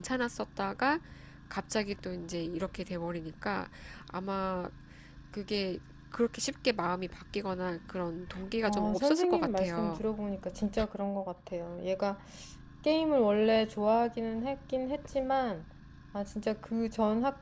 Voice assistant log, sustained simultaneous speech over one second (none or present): present